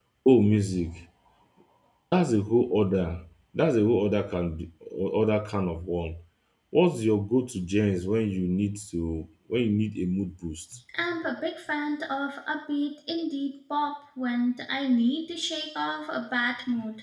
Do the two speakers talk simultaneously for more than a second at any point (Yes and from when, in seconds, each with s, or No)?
No